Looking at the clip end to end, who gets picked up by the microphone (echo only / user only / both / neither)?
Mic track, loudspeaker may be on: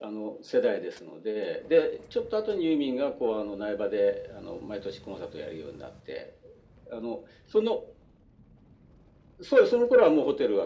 echo only